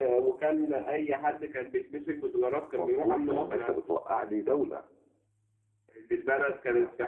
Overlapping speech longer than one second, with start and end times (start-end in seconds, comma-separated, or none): 2.7-4.0